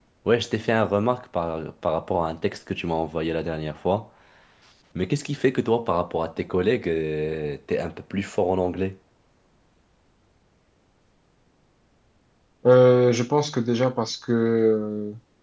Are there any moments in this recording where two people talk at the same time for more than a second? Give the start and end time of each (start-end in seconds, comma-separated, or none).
none